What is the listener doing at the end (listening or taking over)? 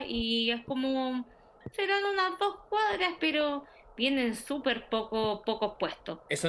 taking over